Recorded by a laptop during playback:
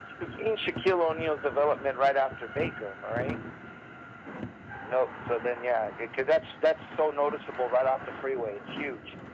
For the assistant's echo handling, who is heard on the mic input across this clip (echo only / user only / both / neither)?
echo only